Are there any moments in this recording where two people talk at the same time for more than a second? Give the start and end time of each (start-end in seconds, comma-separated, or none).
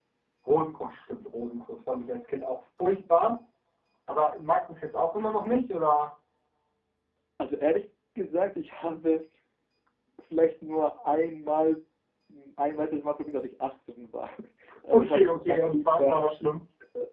14.9-16.2